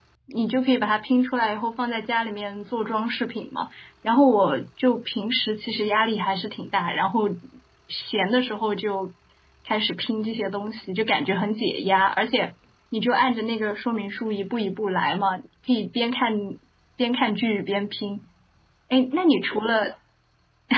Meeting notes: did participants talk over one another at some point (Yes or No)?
No